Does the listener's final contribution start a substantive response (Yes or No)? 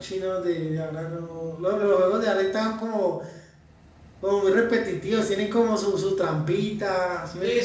Yes